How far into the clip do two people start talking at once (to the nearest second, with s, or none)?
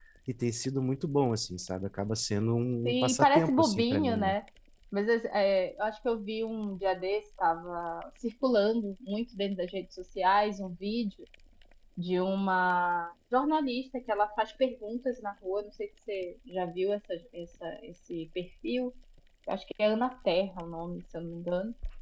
3 s